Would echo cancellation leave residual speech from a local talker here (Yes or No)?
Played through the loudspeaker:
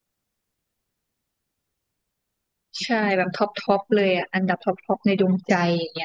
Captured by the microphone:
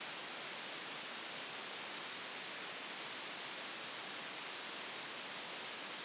No